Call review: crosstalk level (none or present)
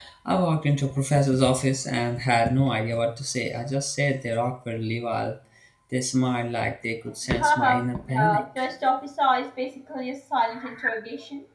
present